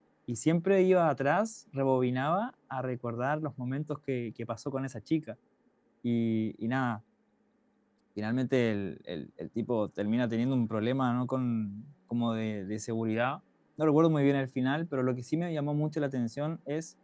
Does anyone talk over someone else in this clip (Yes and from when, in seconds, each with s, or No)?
No